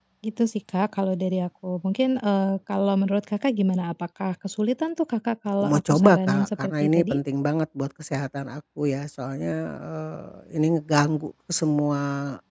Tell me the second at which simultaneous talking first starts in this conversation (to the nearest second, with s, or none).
6 s